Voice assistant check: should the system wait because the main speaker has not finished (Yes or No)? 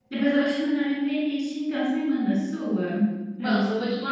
No